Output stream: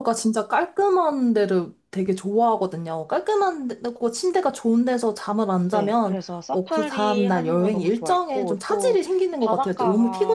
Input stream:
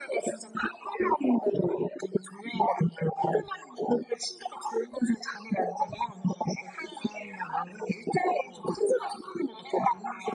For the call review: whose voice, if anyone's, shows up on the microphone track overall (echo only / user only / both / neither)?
echo only